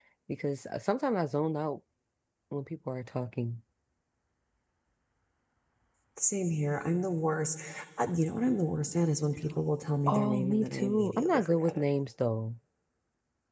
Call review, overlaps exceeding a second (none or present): present